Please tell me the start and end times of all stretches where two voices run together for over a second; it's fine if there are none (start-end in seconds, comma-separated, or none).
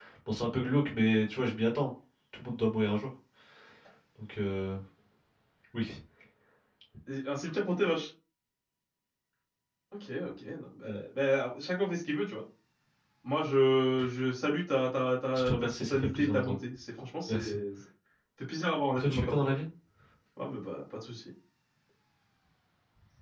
15.3-16.6